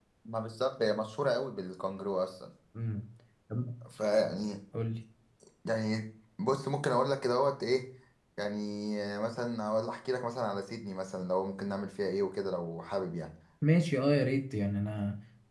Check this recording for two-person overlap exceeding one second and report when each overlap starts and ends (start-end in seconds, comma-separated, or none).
none